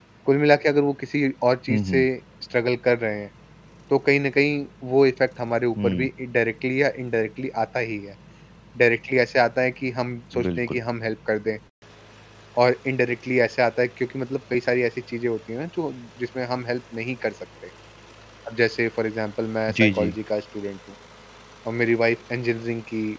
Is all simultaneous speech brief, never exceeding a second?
Yes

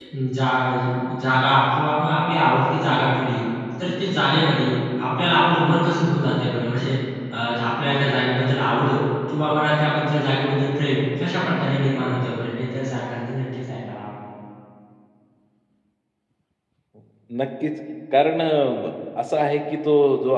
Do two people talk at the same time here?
No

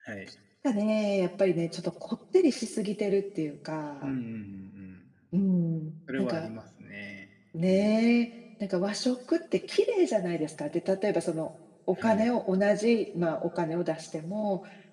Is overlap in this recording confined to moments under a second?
Yes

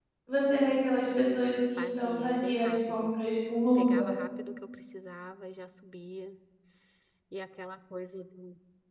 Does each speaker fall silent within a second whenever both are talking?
No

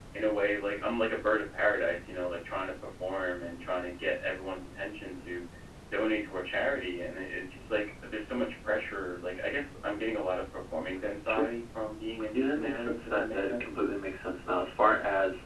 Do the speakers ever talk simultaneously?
Yes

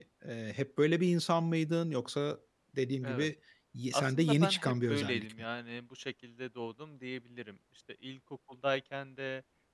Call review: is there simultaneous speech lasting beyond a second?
Yes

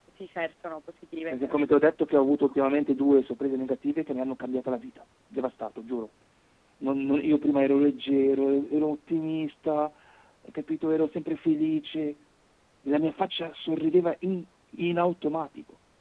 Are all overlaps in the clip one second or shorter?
Yes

